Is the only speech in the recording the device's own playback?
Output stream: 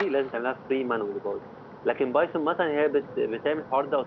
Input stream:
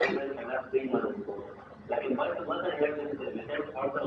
Yes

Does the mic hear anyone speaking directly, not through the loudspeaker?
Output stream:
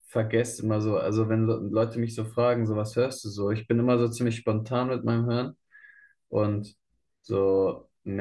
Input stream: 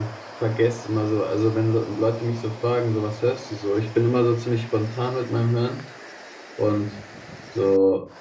No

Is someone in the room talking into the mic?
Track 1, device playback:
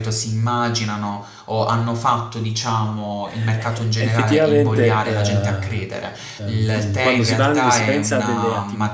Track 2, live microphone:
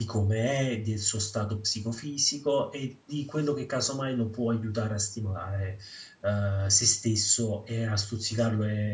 Yes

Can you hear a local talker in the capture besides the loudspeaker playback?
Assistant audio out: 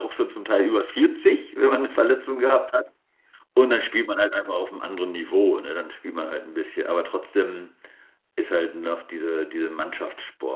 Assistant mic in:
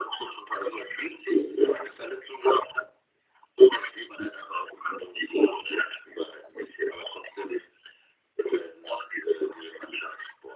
No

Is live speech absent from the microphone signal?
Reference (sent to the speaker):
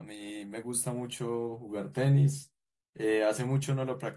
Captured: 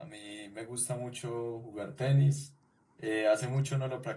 Yes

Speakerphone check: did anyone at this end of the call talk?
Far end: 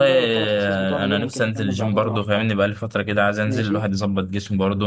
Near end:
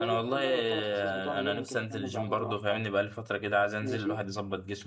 No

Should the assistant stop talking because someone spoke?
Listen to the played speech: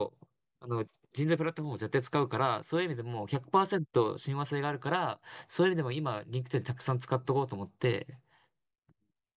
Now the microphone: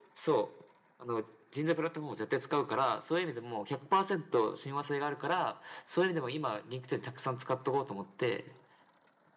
No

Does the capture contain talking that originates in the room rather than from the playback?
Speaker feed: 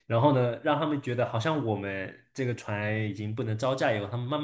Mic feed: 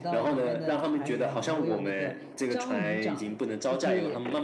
Yes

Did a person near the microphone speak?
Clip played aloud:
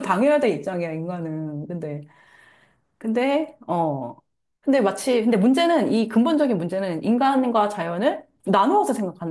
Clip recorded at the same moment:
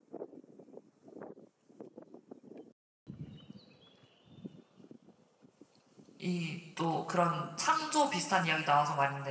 Yes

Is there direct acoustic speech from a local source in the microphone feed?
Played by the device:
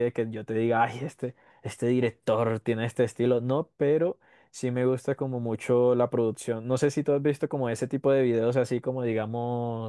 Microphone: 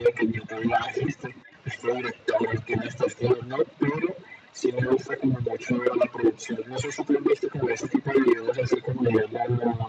No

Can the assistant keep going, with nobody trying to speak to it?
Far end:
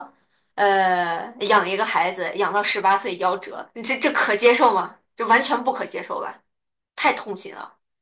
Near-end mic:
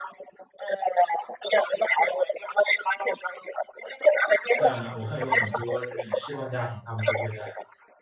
No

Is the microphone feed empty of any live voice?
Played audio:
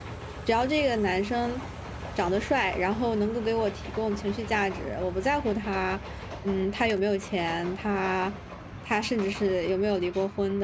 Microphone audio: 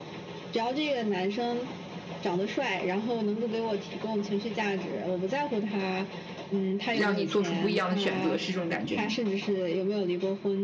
No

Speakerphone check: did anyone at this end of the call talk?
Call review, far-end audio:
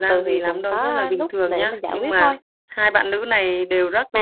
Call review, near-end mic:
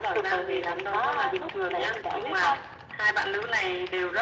No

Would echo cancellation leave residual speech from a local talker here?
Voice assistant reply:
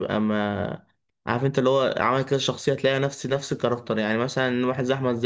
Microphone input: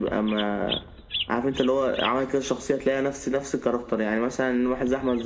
No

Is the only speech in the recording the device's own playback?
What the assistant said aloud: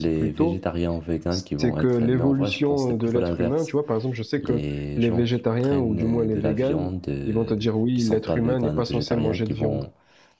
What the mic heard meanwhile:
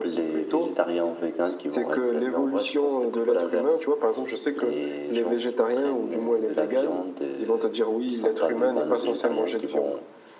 Yes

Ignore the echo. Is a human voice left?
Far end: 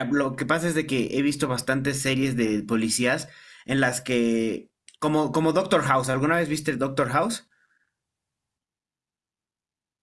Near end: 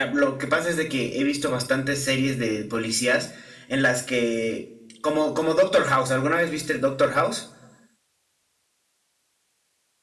No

